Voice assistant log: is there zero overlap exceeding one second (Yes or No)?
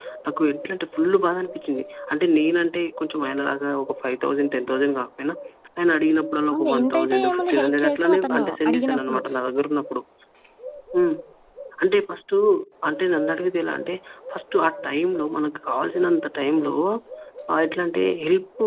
No